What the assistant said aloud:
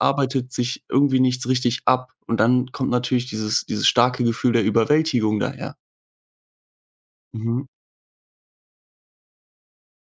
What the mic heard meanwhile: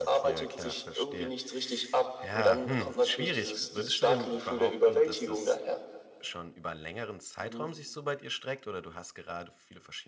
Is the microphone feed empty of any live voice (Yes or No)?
No